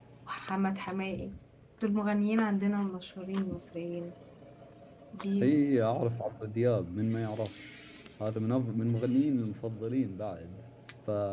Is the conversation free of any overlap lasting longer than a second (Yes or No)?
Yes